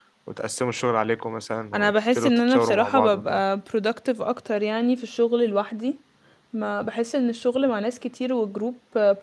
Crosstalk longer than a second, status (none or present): present